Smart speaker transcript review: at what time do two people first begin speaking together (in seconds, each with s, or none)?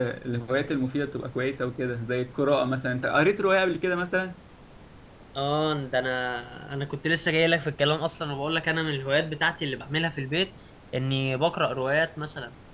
none